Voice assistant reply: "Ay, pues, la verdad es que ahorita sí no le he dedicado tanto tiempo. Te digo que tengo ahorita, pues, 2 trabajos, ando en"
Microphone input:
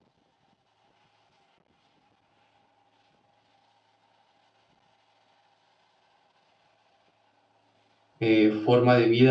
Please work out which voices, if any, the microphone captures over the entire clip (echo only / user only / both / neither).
user only